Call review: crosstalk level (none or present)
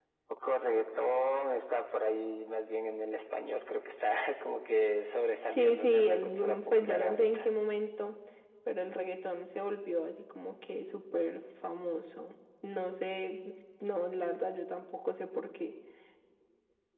present